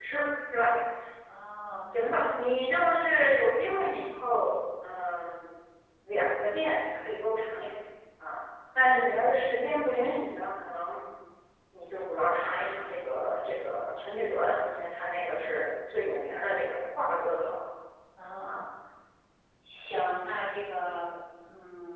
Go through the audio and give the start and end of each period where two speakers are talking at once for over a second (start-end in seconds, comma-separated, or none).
none